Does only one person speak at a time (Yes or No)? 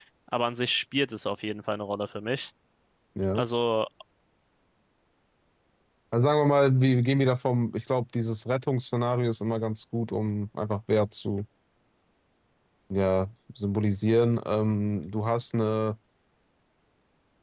Yes